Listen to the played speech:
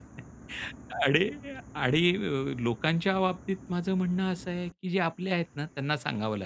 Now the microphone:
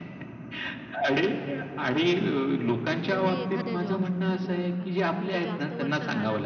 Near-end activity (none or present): present